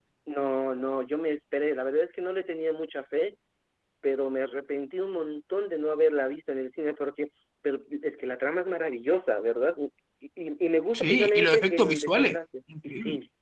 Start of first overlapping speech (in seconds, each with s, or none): 10.9 s